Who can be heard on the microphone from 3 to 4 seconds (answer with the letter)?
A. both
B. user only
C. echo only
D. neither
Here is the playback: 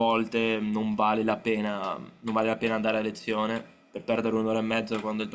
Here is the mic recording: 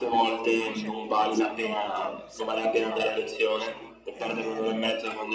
A